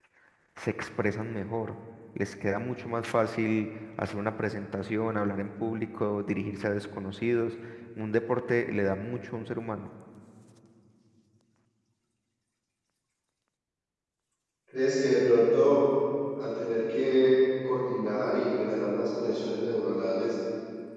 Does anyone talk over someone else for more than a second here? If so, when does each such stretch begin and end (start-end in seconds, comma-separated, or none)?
none